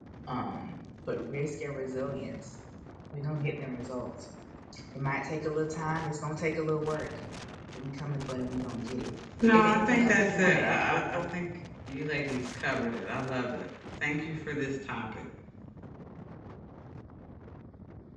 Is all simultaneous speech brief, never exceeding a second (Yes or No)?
No